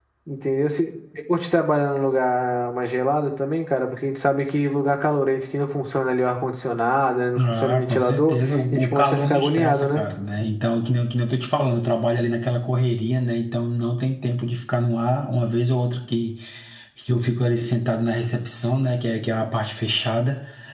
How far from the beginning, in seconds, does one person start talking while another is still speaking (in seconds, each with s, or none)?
7.4 s